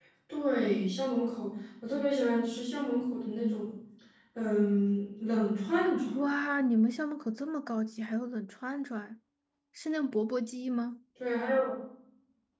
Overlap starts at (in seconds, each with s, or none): none